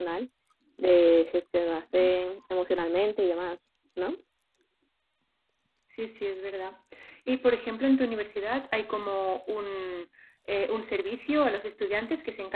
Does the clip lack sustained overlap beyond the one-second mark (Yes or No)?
Yes